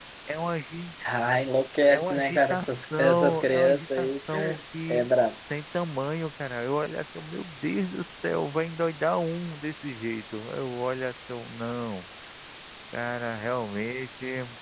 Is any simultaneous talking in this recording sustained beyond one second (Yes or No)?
Yes